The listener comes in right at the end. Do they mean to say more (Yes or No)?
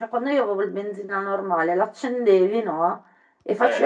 No